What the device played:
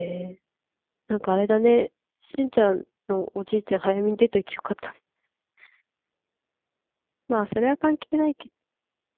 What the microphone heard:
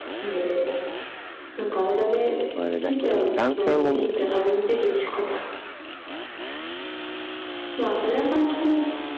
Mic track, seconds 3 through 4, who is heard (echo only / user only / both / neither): both